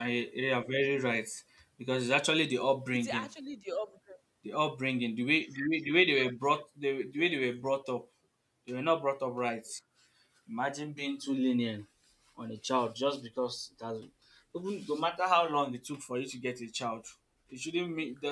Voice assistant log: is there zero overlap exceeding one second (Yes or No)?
Yes